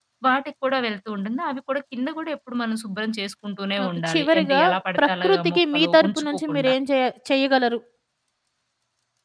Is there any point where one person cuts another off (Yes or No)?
Yes